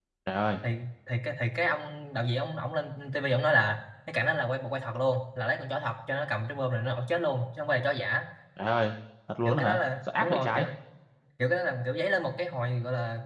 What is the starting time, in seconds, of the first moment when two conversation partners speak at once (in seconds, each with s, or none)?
9.4 s